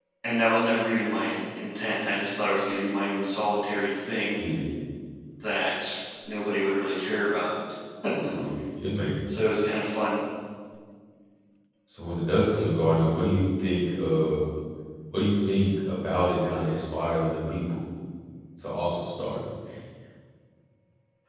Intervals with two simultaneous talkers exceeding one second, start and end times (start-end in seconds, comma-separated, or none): none